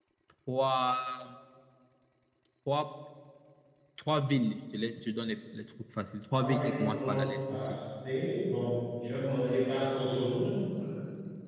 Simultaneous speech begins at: 6.4 s

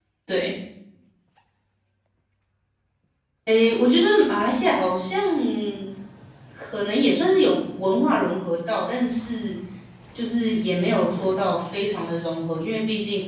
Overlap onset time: none

